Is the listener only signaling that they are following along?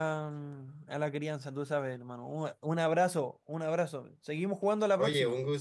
No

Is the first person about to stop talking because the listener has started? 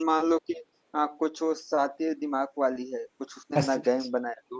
No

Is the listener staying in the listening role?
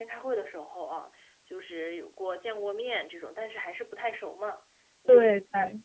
Yes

